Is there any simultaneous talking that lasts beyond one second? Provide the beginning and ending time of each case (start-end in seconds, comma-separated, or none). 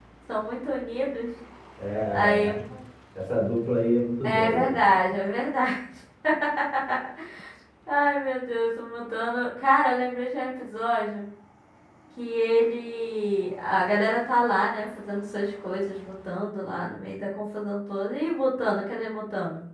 none